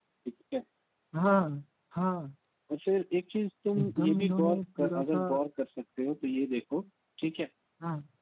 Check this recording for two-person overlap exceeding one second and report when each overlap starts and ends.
3.8-5.2

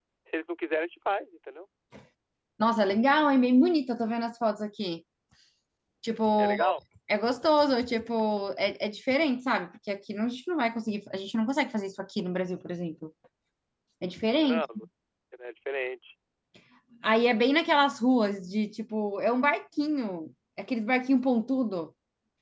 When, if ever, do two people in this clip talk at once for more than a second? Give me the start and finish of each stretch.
none

